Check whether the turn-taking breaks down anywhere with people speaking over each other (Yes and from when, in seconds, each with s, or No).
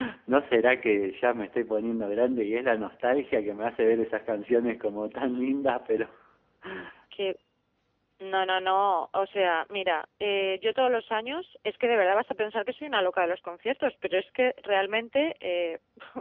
No